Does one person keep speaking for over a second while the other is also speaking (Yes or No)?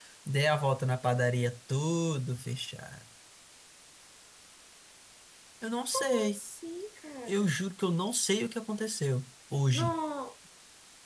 No